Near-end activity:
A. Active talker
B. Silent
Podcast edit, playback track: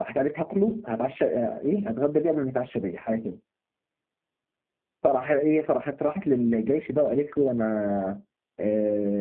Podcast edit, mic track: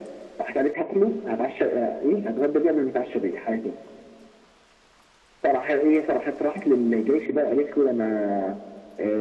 B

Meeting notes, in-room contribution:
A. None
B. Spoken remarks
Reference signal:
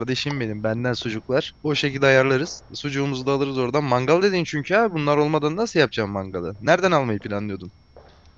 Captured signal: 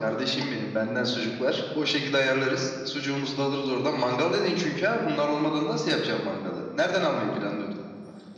A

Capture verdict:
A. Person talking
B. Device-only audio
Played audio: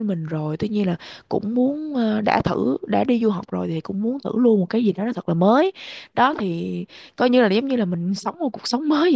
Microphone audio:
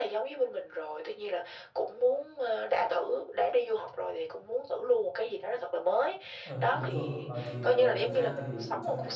A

